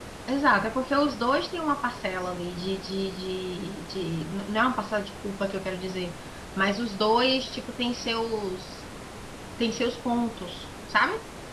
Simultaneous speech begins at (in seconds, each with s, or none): none